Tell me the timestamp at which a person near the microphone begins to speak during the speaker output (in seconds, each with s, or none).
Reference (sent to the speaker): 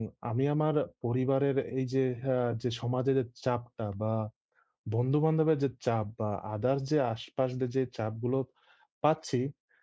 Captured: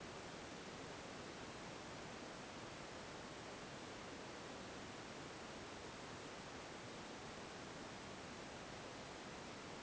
none